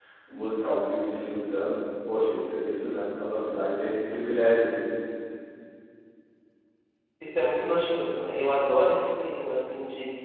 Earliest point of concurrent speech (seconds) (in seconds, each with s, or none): none